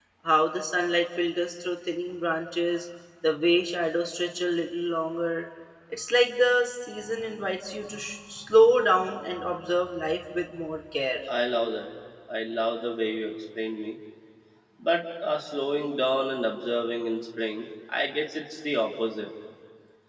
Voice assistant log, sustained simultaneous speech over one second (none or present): none